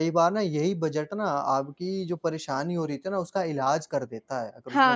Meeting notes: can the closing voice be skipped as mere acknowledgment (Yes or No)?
No